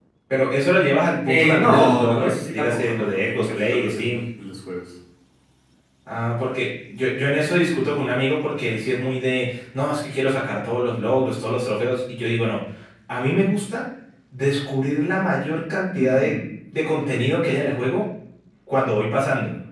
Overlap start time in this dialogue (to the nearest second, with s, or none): 1 s